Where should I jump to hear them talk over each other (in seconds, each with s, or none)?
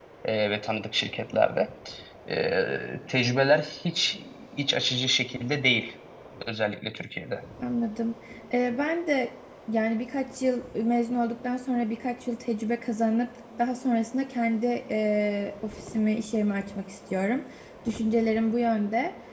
none